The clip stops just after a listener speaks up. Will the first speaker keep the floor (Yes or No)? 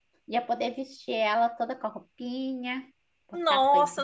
No